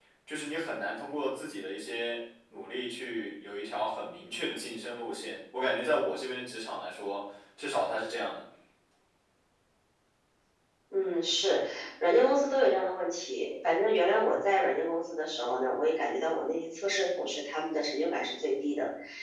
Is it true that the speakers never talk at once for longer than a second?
Yes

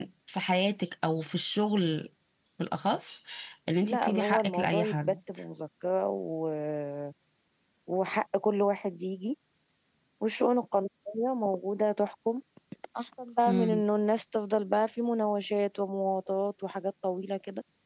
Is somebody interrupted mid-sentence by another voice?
Yes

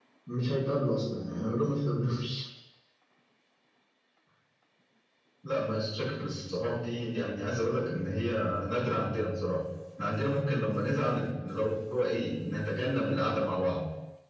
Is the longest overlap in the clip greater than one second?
No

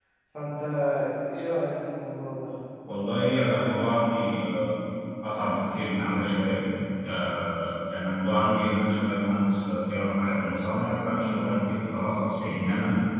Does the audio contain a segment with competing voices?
No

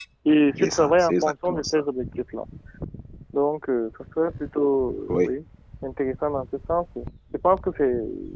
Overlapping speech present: Yes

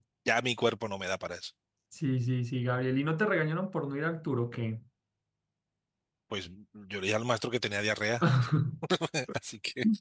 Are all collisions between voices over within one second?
Yes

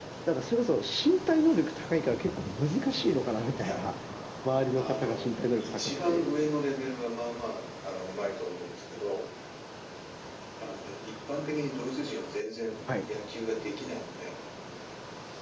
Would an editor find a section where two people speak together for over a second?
Yes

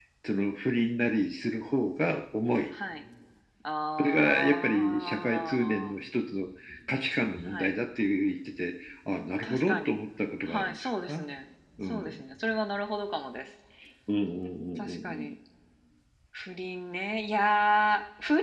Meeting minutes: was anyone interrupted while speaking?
Yes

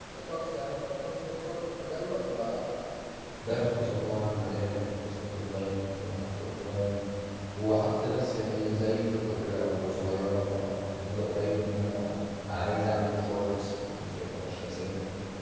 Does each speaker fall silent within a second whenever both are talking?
Yes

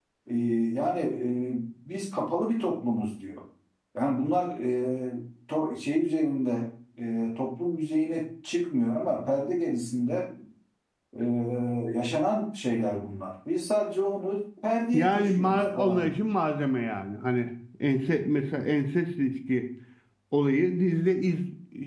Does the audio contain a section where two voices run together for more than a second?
Yes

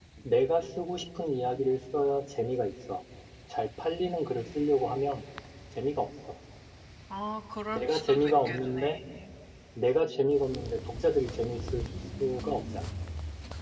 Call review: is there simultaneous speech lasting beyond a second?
Yes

